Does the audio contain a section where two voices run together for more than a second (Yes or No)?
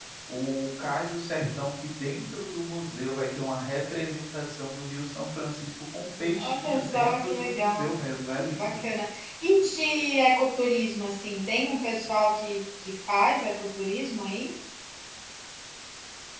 Yes